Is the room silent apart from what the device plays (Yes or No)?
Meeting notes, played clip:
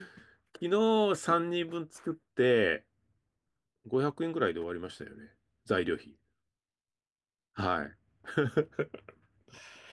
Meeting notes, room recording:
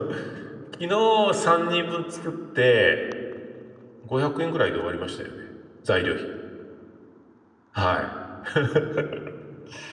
Yes